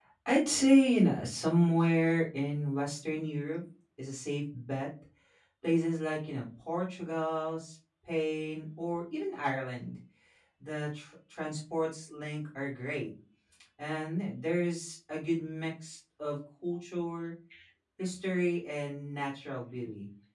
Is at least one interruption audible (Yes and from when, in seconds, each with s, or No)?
No